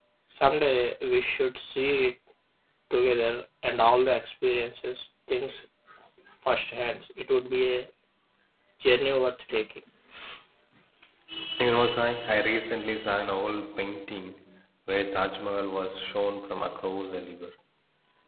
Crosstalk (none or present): none